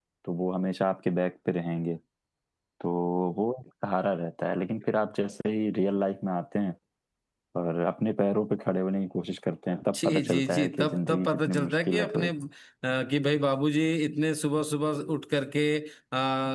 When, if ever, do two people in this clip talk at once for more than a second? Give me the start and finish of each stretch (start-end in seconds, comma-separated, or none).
9.9-12.3